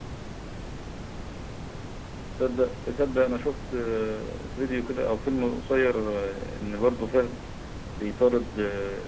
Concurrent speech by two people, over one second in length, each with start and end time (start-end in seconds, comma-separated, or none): none